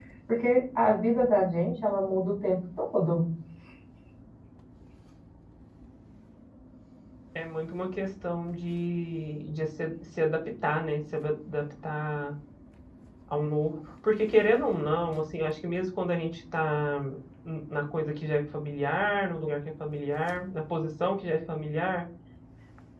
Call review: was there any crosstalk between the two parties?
No

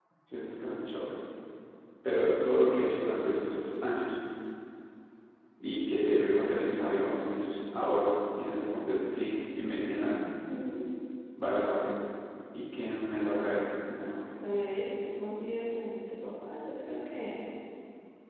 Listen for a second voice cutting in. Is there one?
No

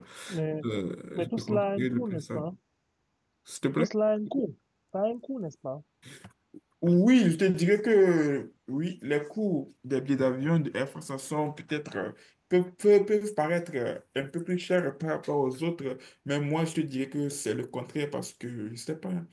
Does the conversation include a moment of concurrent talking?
Yes, from 1.1 s

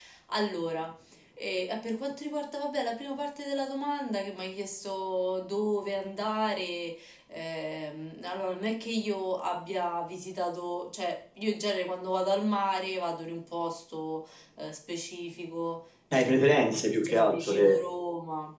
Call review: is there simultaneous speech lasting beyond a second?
Yes, from 16.1 s

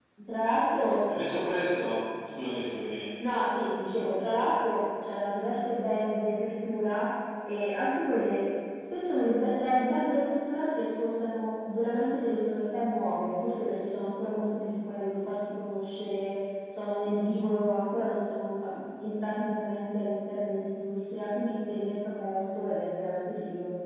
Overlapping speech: No

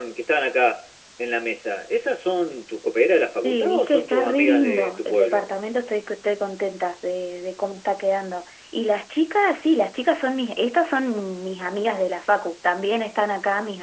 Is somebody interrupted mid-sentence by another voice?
Yes, from 3.4 s

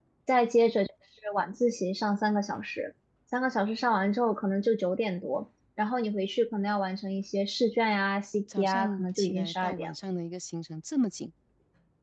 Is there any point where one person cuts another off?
Yes, from 8.5 s

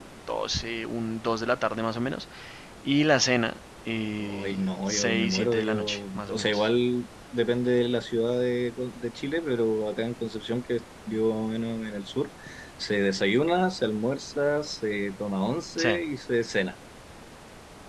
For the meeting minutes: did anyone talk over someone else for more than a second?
Yes, from 4.2 s

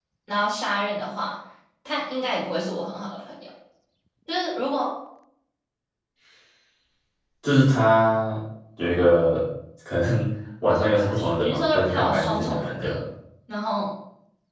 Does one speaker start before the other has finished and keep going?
Yes, from 10.7 s

